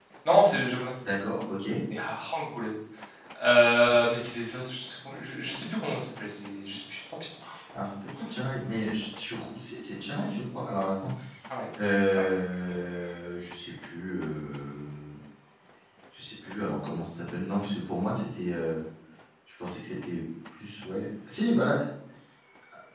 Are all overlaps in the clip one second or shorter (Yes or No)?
Yes